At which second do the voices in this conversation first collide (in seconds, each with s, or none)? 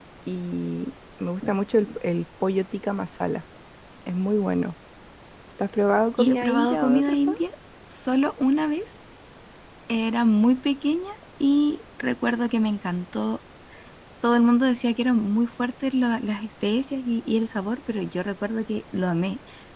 6.2 s